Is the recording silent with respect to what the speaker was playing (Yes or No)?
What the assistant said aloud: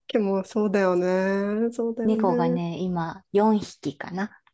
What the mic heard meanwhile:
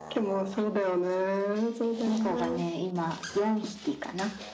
No